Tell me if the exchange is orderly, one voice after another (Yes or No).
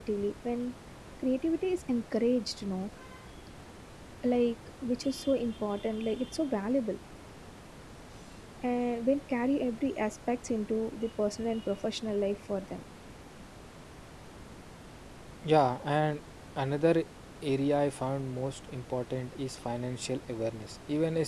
Yes